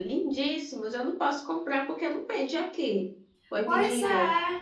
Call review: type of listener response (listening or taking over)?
taking over